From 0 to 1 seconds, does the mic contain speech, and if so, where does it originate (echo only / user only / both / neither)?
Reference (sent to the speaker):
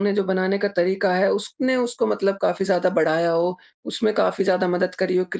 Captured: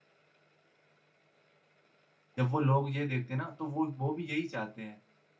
neither